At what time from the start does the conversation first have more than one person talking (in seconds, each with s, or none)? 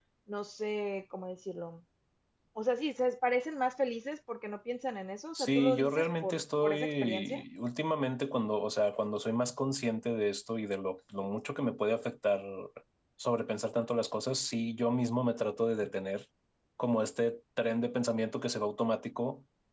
5.3 s